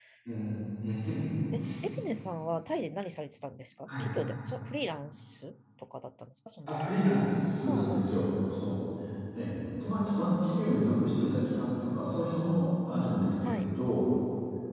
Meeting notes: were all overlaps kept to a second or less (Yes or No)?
Yes